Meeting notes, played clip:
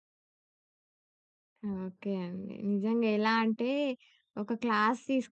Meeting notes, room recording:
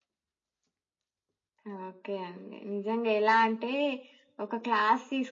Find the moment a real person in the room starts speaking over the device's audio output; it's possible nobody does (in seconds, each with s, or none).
none